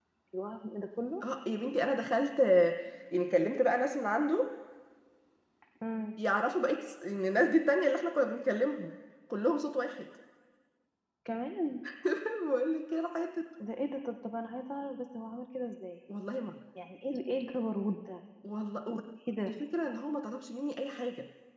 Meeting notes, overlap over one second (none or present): none